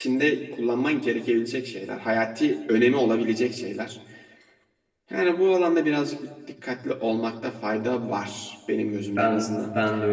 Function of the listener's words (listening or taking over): taking over